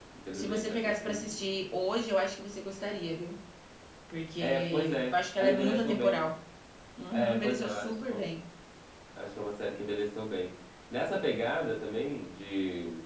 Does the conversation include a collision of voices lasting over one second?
Yes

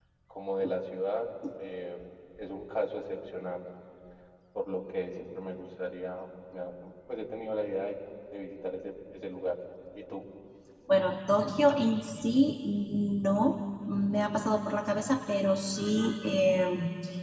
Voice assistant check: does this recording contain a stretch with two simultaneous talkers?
No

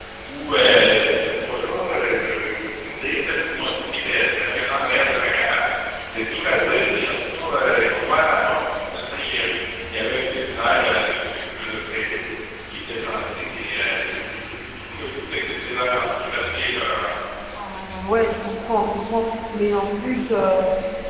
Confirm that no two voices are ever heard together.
Yes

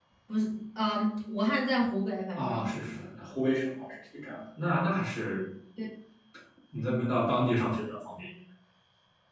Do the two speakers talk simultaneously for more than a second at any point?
No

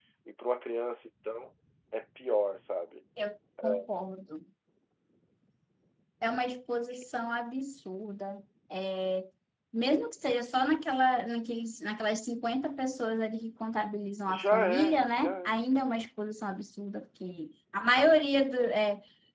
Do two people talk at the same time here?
Yes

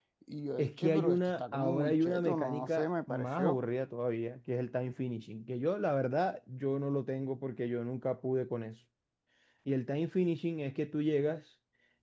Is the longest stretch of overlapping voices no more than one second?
No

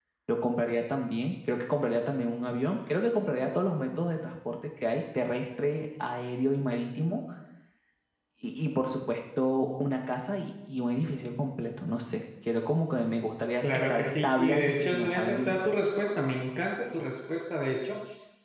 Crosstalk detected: Yes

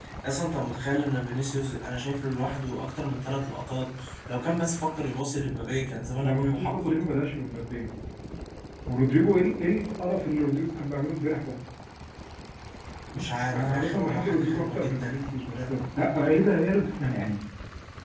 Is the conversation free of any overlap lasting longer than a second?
No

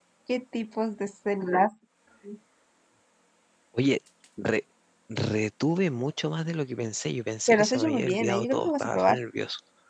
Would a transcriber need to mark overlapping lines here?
Yes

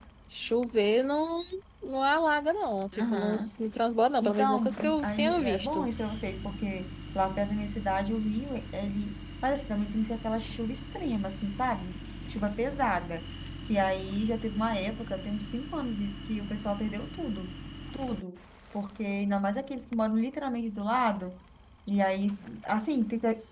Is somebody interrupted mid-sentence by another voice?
Yes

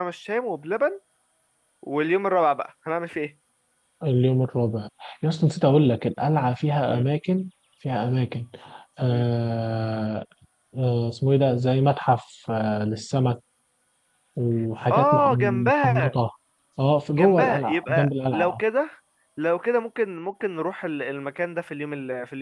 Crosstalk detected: Yes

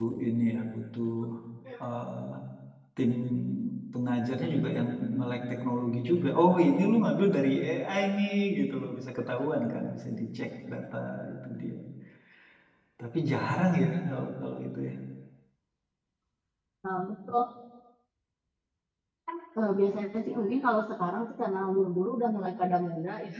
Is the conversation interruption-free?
Yes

